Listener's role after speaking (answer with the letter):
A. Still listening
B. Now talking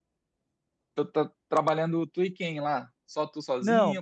B